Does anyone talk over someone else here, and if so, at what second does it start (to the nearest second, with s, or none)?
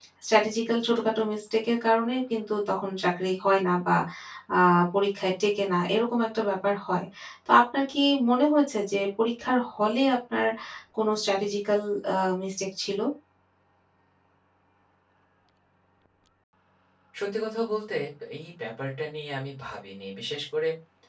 none